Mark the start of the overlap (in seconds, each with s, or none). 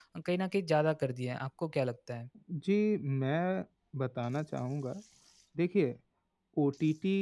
none